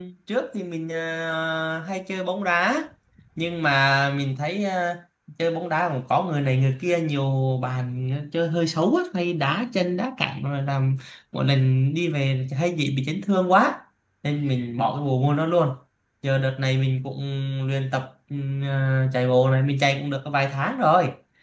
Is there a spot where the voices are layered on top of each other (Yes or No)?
No